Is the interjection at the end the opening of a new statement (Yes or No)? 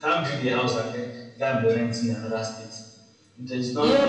Yes